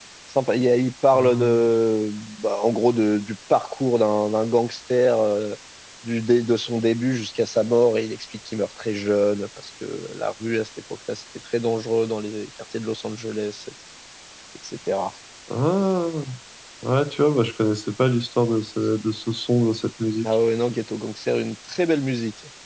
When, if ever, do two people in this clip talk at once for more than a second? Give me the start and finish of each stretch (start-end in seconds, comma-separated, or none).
none